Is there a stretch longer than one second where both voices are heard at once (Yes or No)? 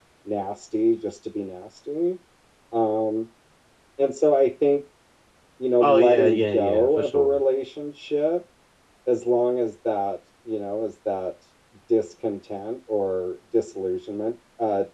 Yes